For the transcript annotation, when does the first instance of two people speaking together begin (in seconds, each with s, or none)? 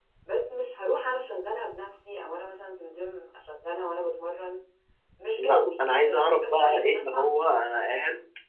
5.4 s